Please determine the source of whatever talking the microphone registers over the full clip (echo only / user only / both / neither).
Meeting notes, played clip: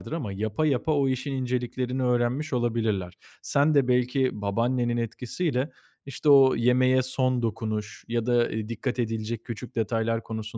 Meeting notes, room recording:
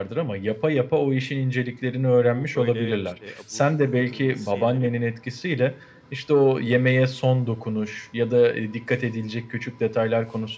both